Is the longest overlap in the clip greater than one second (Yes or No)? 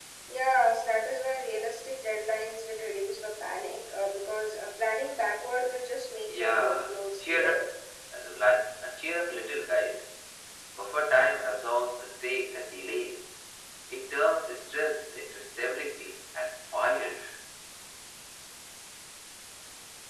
Yes